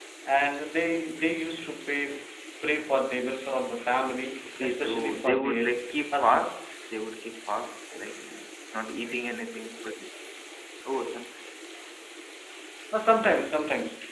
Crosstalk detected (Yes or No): Yes